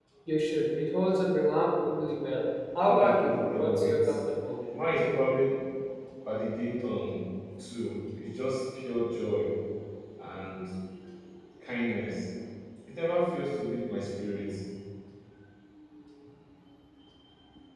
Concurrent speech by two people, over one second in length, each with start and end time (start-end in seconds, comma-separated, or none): 2.9-4.2